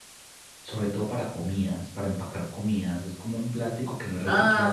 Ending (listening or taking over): taking over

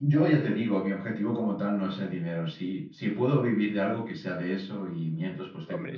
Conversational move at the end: taking over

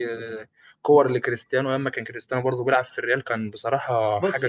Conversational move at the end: taking over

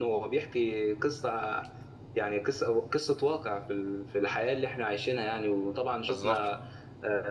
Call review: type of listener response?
listening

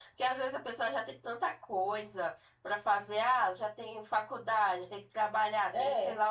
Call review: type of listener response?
listening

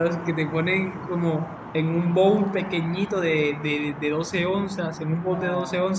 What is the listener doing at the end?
listening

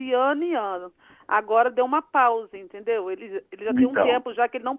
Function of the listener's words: listening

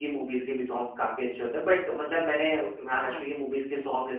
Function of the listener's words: listening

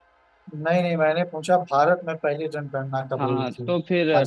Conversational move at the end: taking over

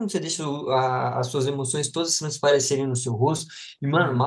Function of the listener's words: listening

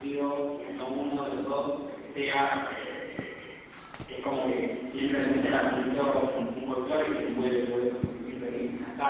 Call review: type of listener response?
listening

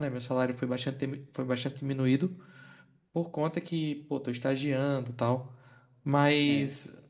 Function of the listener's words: listening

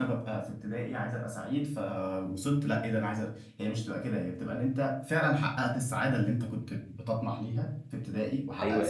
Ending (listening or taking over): taking over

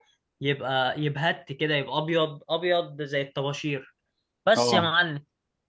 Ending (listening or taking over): listening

